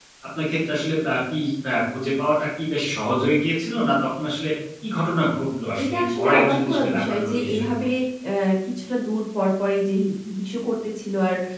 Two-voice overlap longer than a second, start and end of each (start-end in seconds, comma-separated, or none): 5.8-7.7